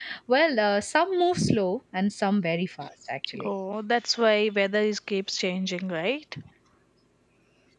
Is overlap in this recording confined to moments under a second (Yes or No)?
Yes